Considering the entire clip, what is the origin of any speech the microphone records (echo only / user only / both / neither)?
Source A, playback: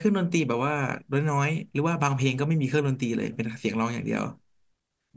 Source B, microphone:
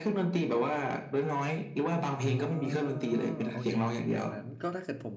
both